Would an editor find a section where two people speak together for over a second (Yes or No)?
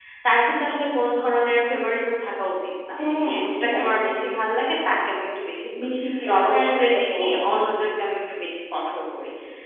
Yes